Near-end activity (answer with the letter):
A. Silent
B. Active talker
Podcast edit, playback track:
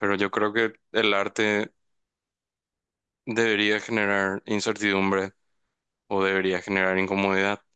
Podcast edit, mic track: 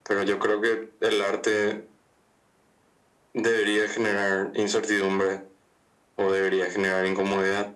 A